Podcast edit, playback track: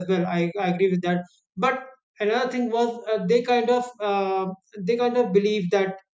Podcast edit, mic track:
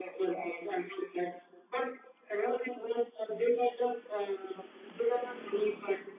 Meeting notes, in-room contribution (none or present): none